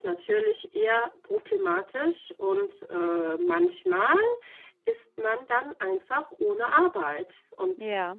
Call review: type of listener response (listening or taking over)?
listening